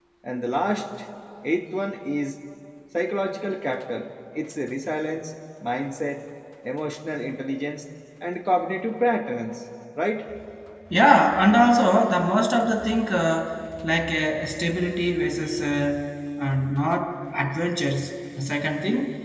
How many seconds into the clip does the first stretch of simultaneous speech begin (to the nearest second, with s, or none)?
none